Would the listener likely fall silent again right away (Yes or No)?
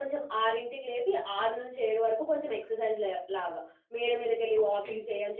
Yes